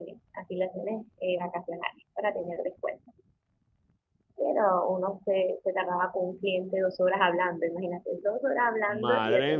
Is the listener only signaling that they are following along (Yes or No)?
No